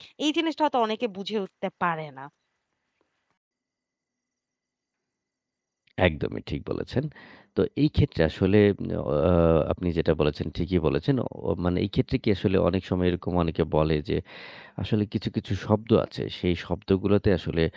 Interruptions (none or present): none